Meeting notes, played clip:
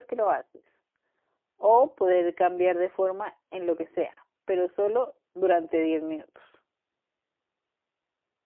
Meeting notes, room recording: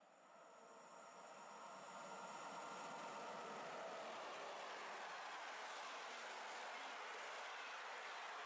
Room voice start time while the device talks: none

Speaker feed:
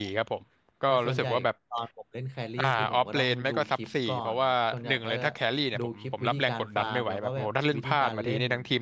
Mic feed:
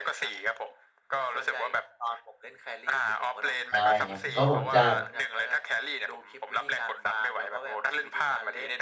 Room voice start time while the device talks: 3.7 s

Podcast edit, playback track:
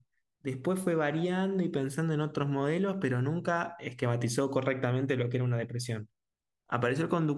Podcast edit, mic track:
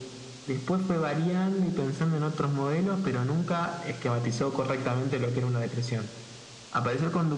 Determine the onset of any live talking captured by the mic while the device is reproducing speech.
none

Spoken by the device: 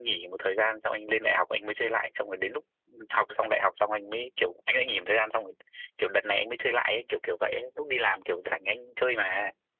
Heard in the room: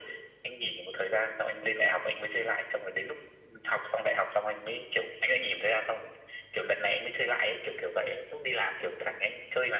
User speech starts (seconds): none

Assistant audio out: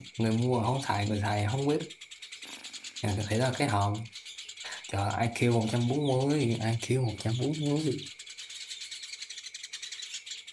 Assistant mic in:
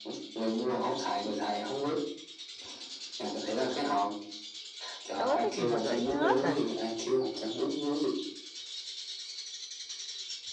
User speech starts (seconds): 5.1 s

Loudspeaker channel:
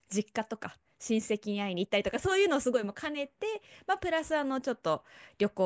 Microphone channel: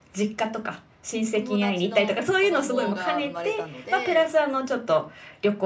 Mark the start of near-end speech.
1.3 s

